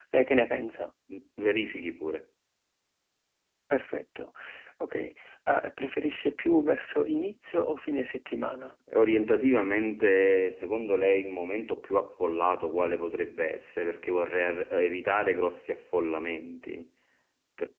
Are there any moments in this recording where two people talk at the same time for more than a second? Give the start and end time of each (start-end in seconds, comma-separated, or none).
none